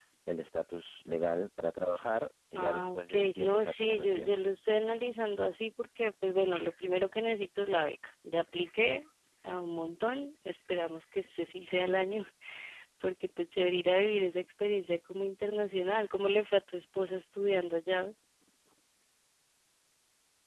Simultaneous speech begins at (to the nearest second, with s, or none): 3 s